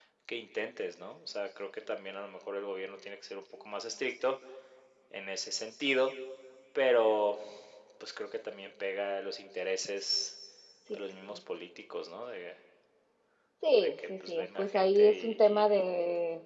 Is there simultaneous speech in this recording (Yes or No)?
Yes